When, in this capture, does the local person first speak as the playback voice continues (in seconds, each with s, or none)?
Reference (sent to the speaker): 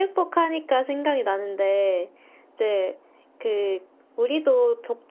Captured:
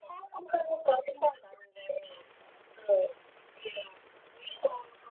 none